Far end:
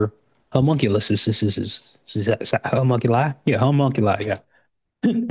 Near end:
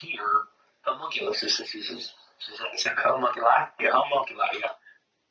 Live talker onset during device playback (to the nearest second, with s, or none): none